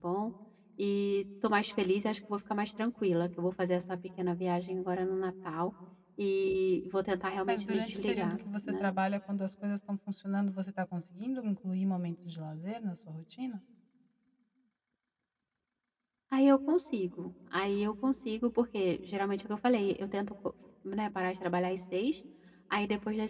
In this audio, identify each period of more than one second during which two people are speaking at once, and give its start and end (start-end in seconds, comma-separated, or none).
7.5-8.9